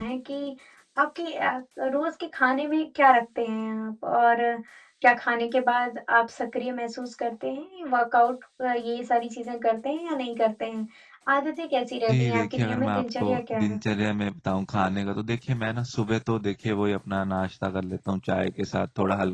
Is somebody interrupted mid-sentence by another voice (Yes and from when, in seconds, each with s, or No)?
Yes, from 12.1 s